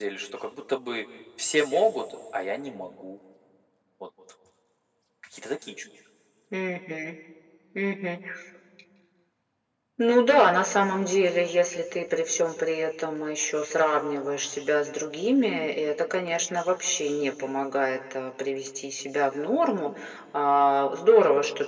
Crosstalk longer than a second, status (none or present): none